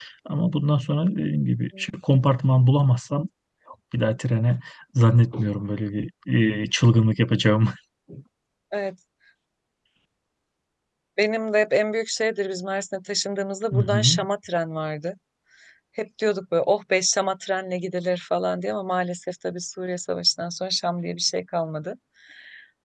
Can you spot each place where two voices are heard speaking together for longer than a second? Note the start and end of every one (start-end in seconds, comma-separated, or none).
none